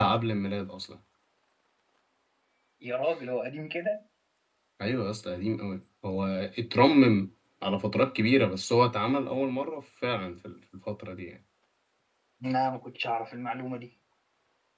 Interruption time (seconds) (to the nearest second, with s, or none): none